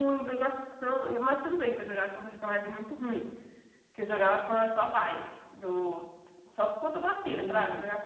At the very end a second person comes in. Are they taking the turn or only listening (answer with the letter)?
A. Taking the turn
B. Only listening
B